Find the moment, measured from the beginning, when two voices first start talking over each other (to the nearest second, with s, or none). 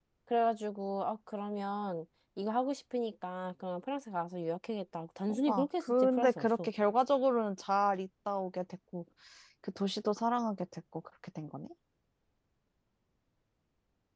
5 s